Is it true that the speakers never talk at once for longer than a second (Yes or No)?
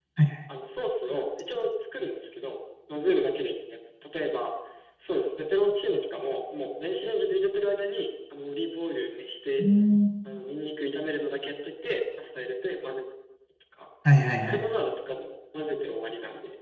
Yes